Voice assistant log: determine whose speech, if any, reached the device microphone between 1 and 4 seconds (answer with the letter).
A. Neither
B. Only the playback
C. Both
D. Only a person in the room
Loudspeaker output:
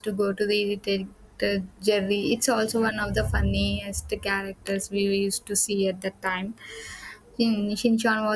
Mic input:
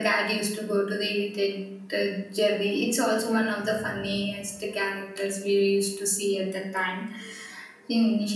B